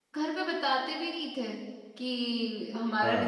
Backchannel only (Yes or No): Yes